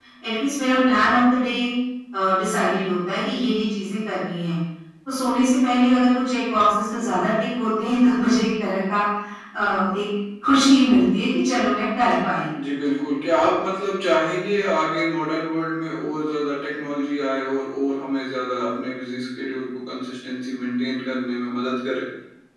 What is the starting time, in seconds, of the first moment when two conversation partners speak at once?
none

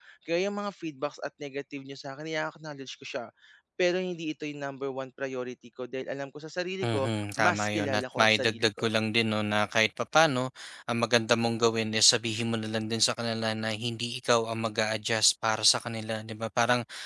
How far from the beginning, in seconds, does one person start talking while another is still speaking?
6.8 s

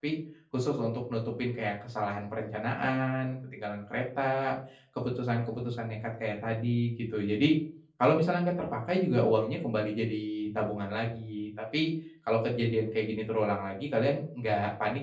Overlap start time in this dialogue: none

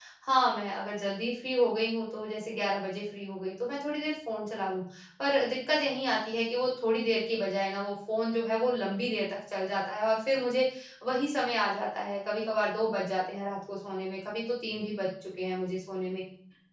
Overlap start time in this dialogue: none

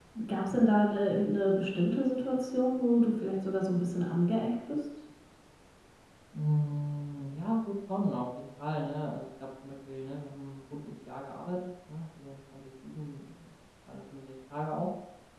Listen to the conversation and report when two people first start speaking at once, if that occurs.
none

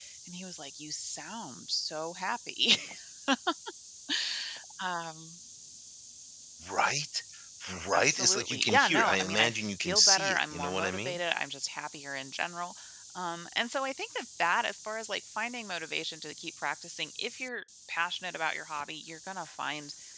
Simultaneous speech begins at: 7.9 s

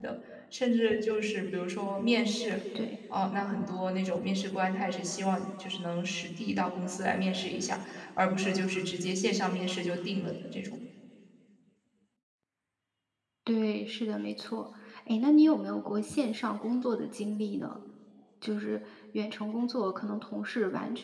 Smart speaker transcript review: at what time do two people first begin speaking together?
none

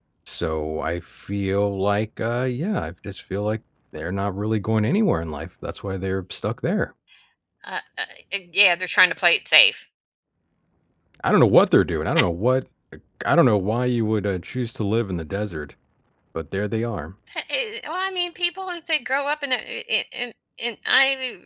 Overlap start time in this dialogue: none

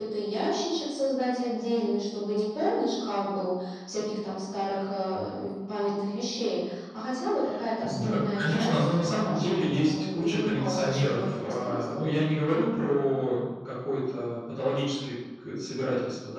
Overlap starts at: 7.8 s

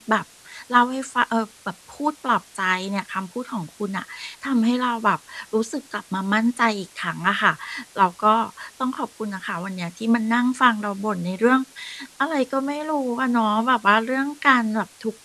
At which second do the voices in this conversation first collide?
none

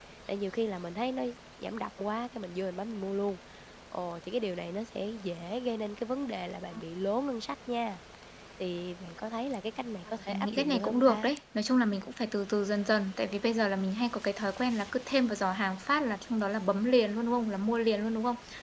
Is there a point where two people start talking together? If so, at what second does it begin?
10.1 s

